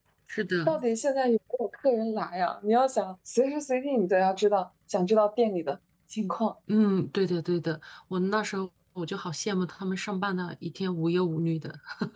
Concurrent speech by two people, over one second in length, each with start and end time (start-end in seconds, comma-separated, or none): none